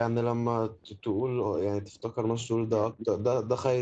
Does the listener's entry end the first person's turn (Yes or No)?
No